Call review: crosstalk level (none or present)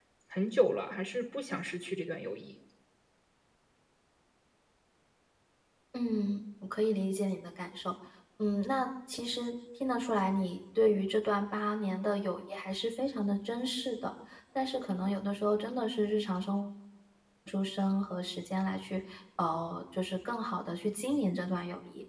none